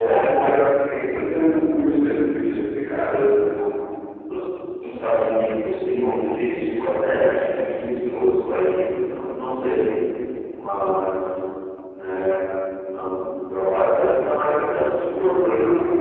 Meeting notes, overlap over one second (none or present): none